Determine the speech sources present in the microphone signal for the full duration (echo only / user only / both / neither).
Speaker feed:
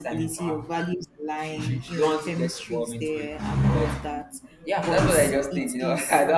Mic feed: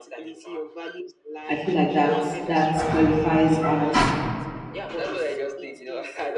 both